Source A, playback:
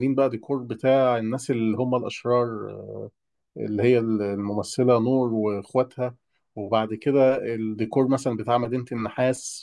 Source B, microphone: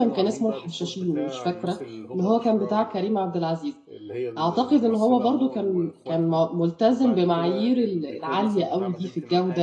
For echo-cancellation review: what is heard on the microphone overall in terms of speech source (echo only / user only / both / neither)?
both